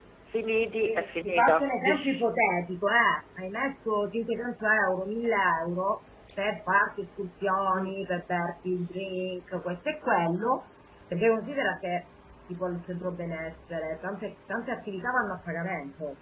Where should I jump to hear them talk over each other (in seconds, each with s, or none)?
0.8 s